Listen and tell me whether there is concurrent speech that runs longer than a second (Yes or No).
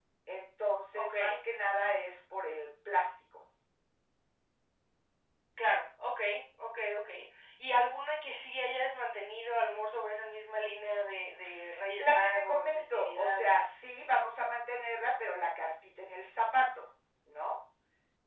Yes